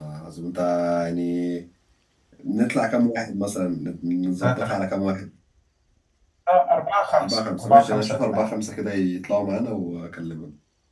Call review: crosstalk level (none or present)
present